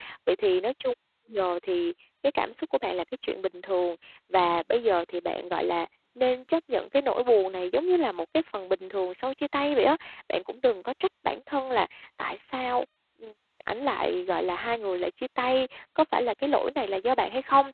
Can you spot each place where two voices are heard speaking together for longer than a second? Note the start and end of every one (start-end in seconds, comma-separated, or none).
none